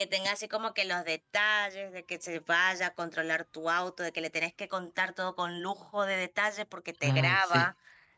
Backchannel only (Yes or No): Yes